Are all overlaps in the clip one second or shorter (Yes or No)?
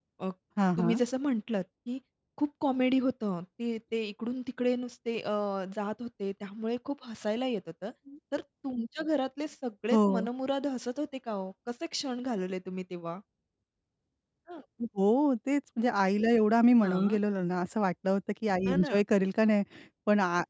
Yes